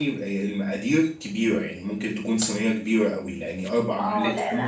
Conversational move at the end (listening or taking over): taking over